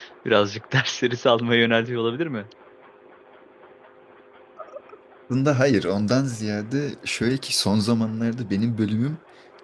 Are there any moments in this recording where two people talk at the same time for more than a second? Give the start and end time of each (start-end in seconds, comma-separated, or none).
none